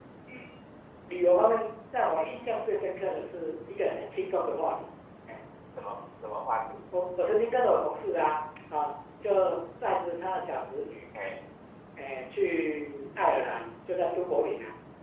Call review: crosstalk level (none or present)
none